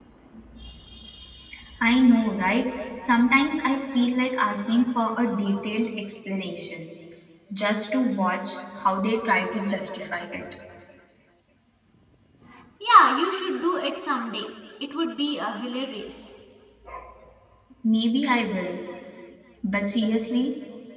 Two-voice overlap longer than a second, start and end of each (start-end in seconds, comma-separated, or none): none